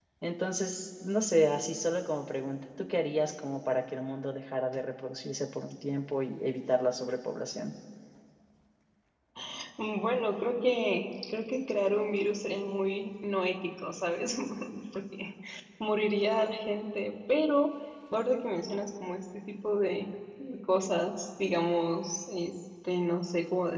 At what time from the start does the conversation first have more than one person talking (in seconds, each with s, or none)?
none